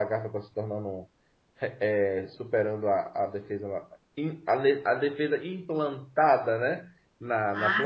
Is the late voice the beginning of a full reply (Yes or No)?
Yes